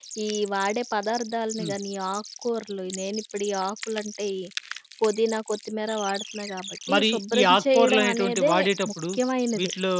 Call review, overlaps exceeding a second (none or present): present